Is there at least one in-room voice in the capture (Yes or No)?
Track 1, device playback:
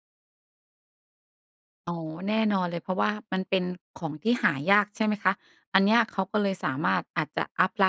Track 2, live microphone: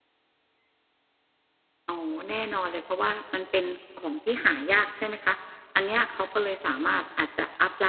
No